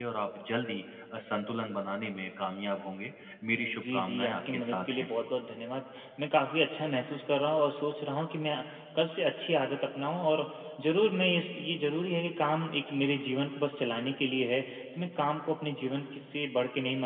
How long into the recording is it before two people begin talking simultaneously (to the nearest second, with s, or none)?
4 s